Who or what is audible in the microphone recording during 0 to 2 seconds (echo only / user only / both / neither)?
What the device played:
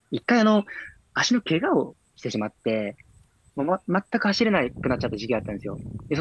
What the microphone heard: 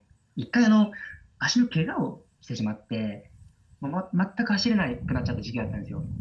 echo only